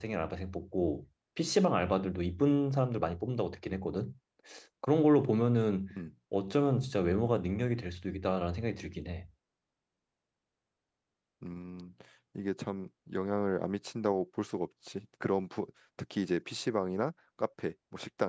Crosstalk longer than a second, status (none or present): none